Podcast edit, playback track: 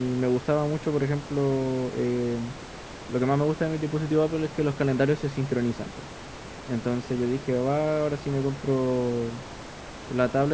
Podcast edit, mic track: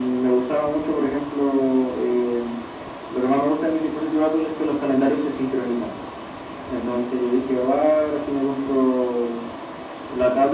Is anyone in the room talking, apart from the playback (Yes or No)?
No